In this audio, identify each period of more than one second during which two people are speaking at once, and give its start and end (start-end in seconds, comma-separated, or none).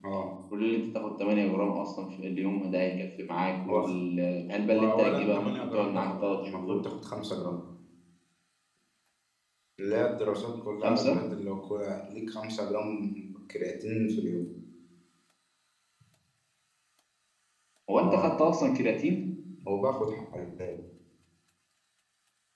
4.7-6.8